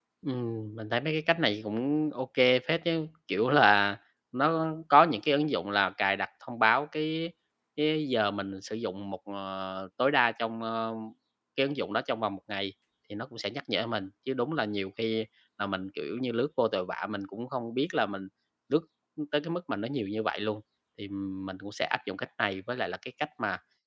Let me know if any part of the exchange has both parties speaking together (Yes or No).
No